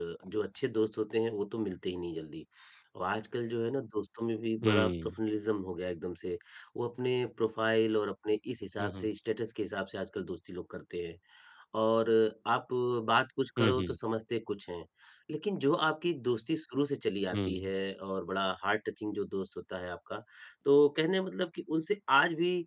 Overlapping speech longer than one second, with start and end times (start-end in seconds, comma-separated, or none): none